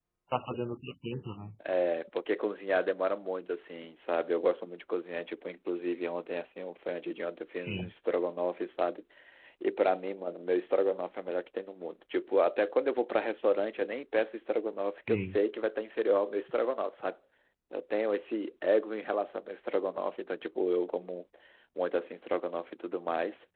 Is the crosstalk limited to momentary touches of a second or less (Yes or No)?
Yes